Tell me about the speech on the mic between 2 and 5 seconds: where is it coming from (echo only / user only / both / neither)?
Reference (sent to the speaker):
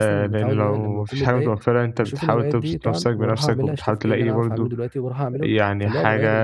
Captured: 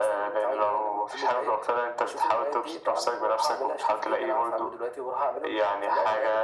echo only